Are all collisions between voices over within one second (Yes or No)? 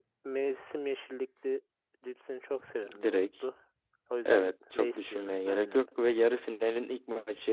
No